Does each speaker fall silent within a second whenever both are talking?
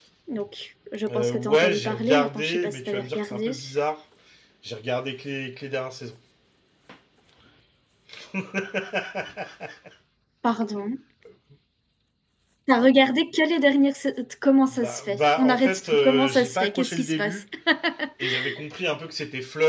No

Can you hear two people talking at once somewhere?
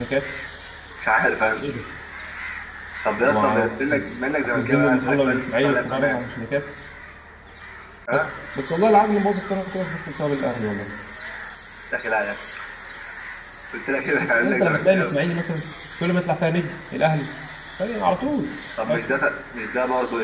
Yes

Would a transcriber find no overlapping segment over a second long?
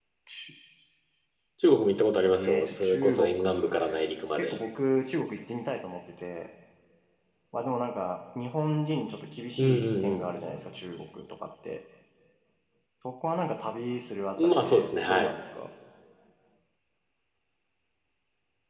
No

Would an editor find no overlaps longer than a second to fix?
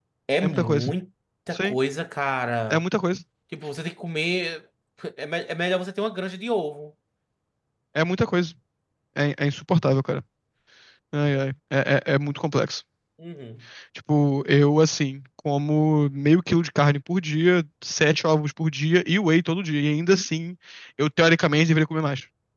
Yes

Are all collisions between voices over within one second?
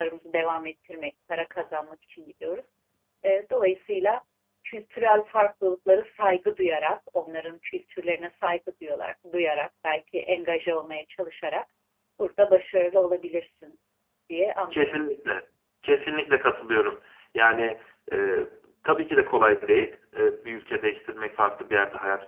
Yes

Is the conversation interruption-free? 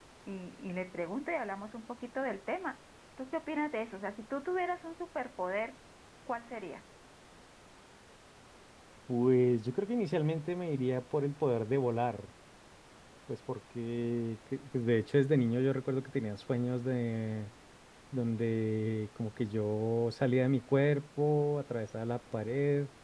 Yes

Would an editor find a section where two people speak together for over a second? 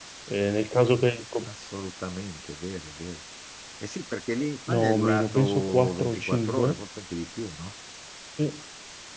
Yes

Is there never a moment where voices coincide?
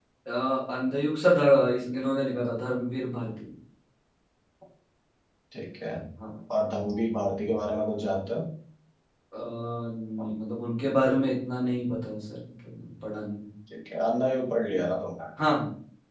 Yes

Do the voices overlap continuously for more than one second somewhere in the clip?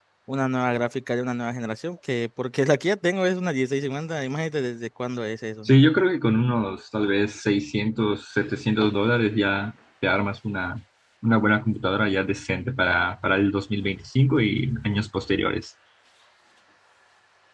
No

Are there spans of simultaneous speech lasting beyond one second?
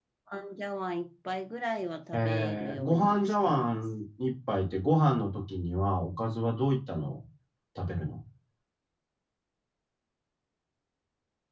Yes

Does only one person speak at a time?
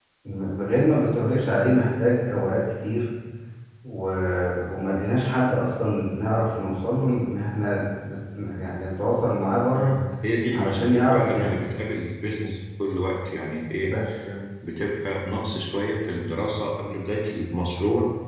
No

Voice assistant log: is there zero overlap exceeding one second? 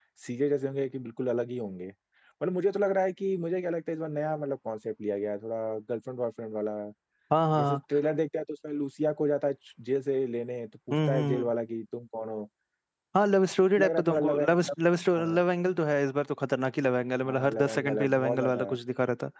No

